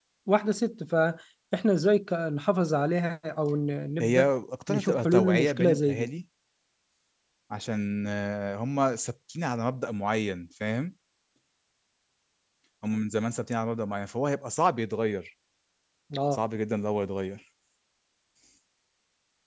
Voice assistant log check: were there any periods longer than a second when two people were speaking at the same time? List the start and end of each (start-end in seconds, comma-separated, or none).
4.7-6.1